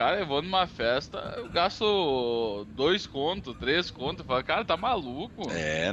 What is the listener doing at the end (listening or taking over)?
taking over